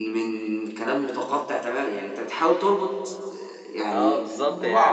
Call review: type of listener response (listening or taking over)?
taking over